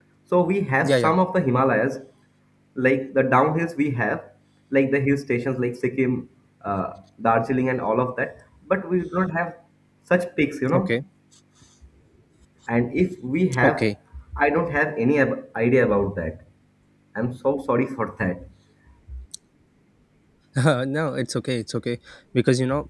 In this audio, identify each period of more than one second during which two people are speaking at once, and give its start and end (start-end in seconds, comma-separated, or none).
none